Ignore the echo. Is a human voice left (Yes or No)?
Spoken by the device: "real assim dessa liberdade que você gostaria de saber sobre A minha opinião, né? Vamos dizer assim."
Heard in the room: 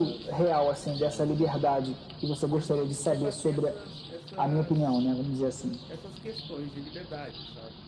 Yes